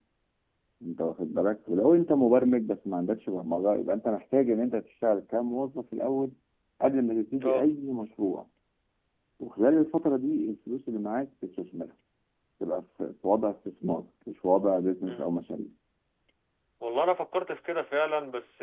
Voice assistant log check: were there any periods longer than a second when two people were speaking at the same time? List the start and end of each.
none

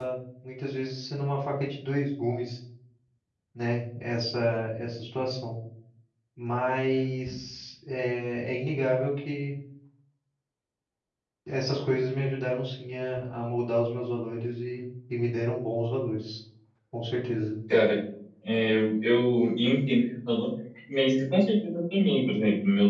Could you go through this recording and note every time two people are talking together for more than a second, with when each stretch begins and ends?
none

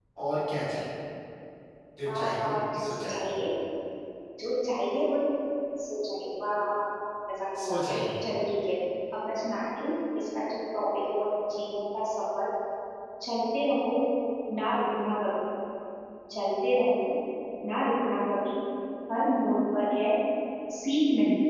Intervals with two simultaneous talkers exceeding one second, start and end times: 2.1-3.4

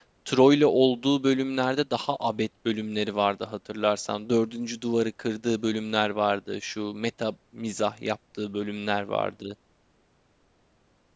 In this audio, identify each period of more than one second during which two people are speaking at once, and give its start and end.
none

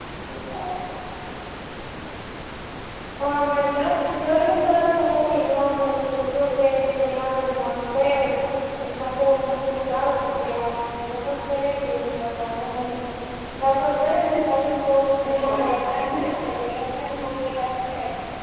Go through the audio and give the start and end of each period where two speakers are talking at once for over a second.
15.2-16.5

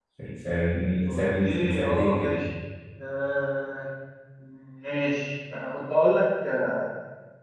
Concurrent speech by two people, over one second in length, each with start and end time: 1.1-2.4

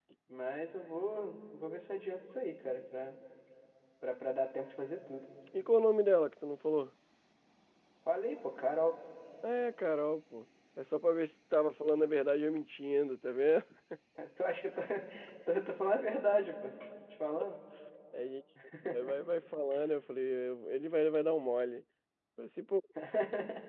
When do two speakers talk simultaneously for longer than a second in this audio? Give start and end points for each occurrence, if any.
none

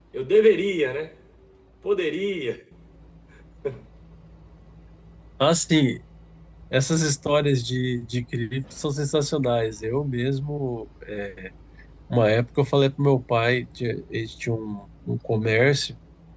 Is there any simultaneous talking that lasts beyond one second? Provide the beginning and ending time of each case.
none

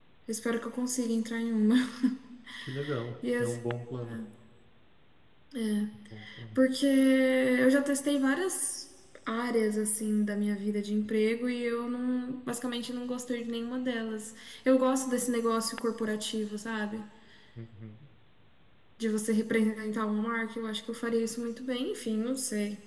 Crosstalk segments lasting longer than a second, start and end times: none

